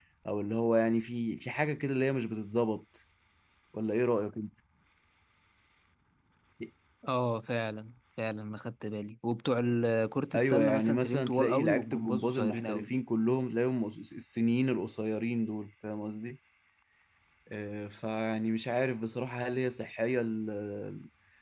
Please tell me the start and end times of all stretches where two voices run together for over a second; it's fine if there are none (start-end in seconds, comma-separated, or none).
10.3-12.9